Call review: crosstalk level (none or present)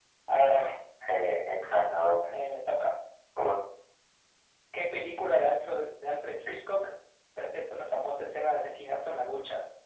none